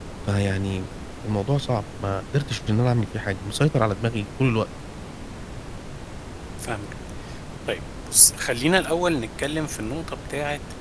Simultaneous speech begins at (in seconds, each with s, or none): none